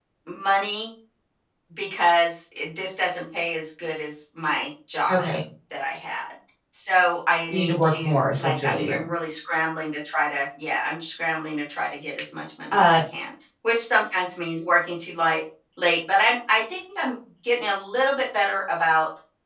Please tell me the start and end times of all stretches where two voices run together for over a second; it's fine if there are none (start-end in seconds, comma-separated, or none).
7.5-8.9